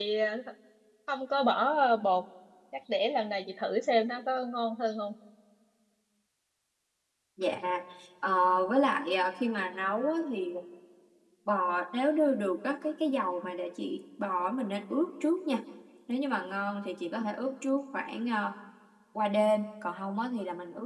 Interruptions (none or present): none